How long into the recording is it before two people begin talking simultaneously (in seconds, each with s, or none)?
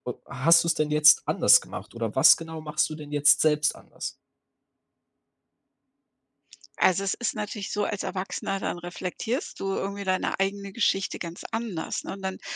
none